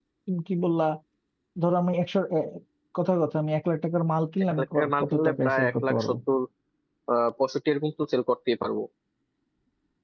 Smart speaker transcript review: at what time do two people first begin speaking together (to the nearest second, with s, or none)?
5 s